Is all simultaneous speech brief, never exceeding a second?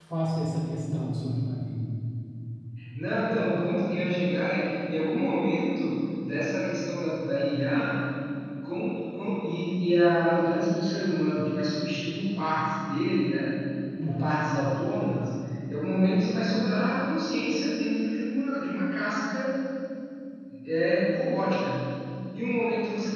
Yes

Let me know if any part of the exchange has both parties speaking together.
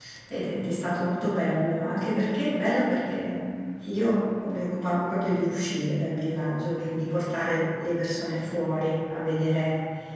No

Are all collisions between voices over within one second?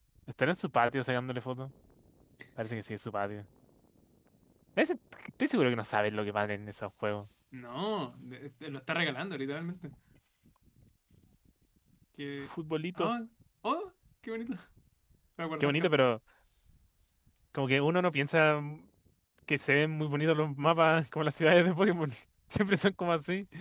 Yes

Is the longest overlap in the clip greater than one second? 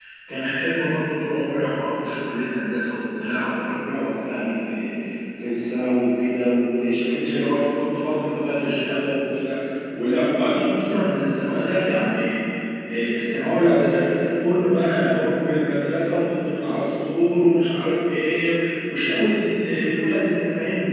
No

